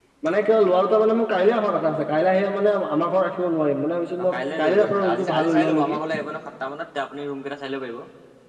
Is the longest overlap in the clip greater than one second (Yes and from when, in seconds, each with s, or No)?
Yes, from 4.2 s